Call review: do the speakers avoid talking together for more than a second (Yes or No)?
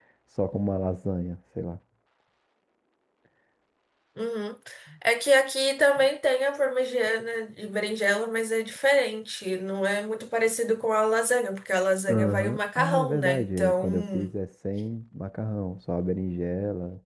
No